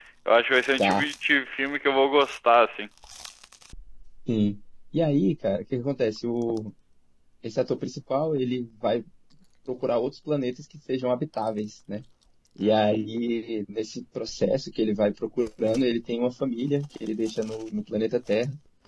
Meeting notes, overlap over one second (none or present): none